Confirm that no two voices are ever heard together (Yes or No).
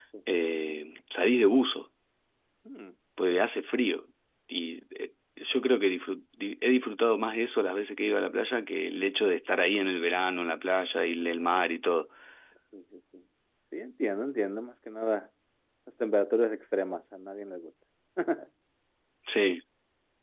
Yes